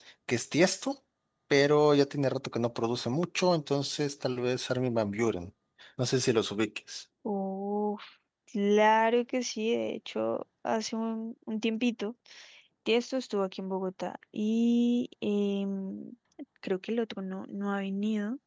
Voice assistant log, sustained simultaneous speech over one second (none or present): none